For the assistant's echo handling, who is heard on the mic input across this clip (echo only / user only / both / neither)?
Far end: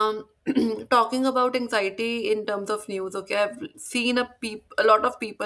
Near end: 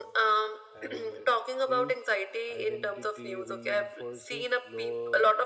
both